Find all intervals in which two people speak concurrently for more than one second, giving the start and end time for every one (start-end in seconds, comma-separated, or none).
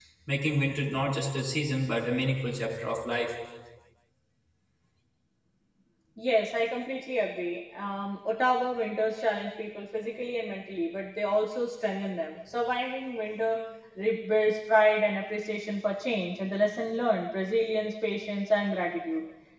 none